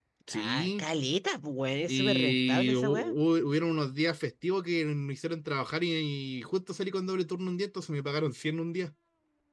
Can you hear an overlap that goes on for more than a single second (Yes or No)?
Yes